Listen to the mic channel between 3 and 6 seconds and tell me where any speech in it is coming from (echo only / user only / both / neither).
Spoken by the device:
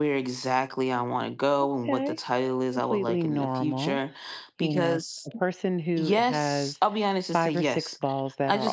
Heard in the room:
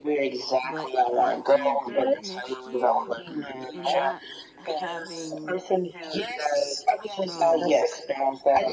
both